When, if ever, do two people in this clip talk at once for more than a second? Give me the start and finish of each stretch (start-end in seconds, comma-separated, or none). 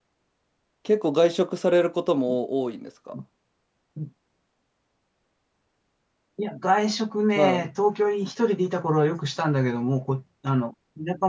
none